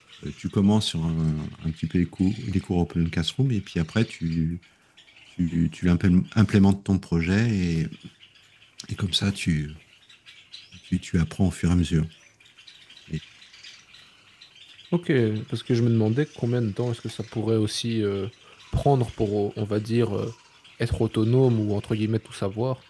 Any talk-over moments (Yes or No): No